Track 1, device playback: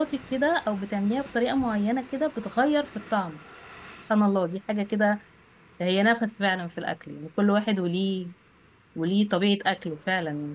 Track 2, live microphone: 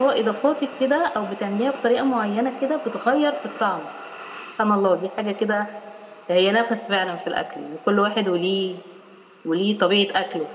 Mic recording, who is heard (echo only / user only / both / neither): echo only